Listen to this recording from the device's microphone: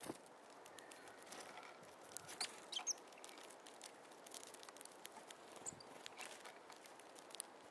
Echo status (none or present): none